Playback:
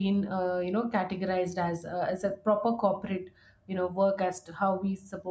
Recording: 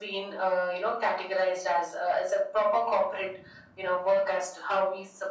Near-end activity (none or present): none